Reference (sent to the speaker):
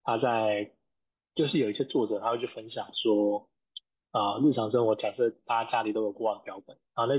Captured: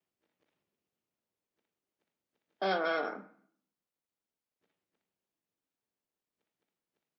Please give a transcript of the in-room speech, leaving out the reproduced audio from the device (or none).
嗯嗯